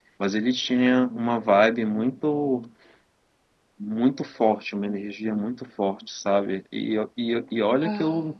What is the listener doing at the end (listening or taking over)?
listening